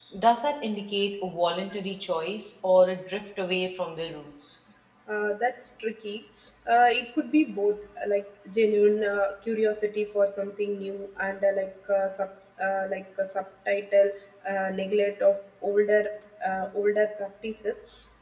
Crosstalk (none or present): none